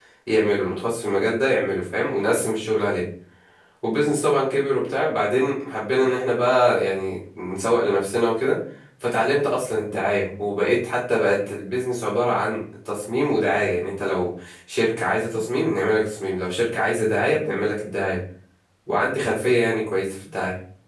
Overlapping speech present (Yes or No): No